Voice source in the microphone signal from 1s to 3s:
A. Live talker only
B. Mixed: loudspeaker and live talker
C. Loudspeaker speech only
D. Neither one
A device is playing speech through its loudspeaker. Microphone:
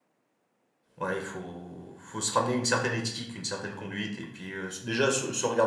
A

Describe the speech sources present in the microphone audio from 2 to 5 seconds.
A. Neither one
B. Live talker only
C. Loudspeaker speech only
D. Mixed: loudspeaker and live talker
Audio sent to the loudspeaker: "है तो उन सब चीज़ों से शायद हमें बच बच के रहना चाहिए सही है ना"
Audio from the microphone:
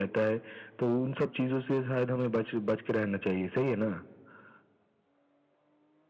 C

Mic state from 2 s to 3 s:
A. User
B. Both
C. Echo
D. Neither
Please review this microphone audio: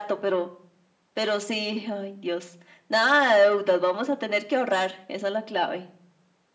C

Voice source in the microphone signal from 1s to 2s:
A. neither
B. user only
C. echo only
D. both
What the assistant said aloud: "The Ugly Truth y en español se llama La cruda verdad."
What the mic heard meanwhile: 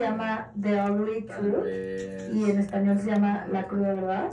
D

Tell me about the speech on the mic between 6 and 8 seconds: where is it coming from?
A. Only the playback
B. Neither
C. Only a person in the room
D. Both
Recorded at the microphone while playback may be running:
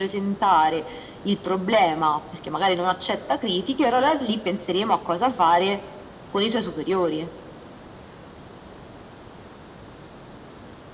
A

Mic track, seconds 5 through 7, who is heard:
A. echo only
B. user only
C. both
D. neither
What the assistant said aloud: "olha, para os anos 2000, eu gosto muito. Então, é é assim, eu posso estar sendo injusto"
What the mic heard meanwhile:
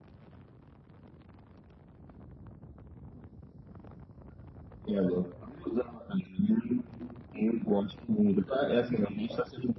A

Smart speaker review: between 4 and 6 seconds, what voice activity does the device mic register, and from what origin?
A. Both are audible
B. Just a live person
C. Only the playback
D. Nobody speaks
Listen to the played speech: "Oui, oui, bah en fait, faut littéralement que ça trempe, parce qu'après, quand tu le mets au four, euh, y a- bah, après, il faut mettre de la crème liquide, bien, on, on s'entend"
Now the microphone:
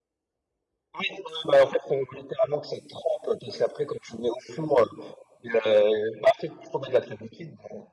C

